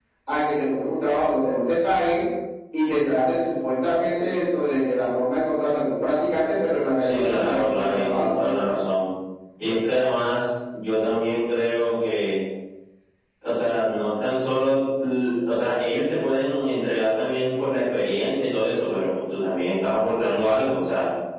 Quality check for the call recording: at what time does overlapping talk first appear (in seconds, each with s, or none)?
7.0 s